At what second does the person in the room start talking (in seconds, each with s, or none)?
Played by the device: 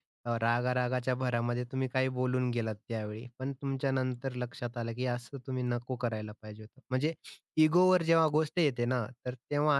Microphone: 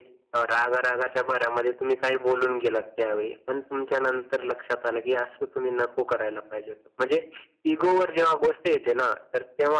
none